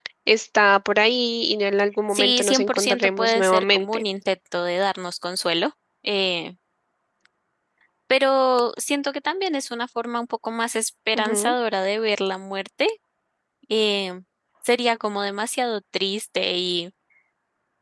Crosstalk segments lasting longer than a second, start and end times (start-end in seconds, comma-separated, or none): 2.1-4.0